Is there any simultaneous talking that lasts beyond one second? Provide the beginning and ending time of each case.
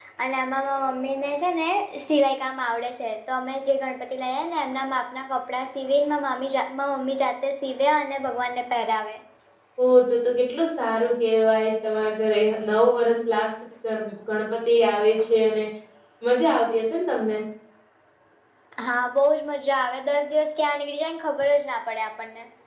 none

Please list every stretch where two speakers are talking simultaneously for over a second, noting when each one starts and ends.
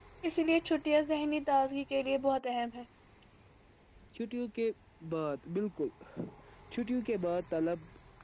none

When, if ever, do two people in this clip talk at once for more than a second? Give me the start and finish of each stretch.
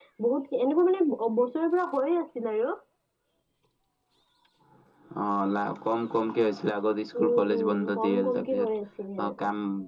7.2-8.7

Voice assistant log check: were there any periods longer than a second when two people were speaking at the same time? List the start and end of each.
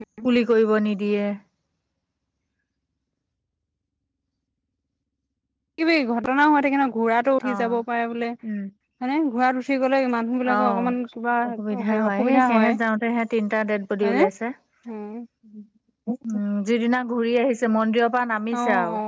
11.5-12.8

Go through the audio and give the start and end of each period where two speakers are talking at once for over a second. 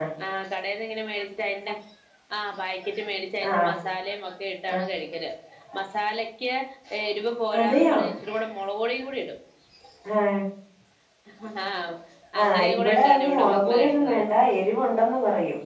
12.4-14.2

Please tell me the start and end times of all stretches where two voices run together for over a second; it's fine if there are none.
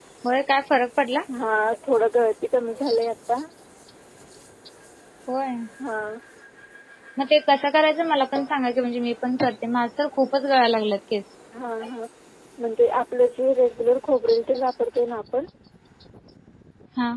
none

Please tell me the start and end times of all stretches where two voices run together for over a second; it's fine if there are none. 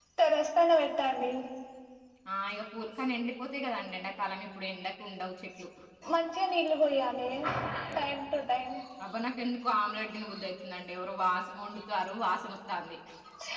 none

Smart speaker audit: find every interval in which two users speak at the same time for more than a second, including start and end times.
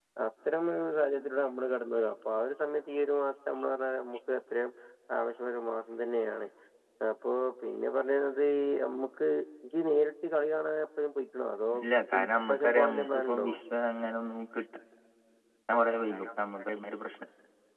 12.2-13.5

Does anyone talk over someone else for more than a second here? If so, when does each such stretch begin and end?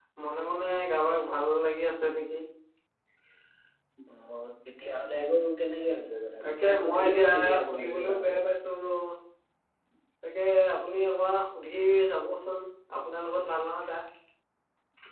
6.4-8.4

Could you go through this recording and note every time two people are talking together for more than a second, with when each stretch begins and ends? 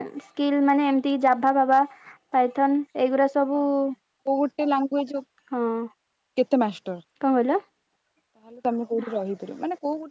none

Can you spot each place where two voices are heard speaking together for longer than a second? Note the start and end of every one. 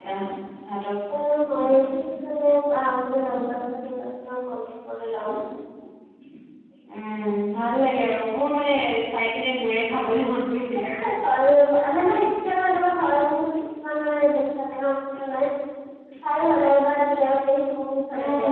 none

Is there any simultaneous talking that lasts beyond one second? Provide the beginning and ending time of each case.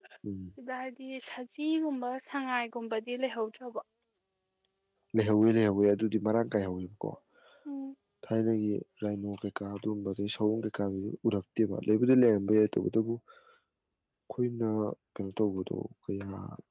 none

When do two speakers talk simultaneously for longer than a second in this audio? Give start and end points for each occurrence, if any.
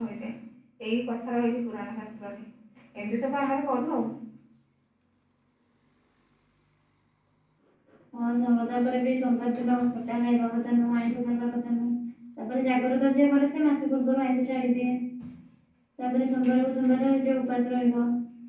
none

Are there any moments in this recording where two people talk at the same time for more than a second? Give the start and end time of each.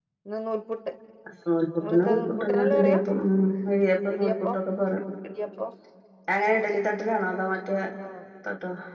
1.8-3.0

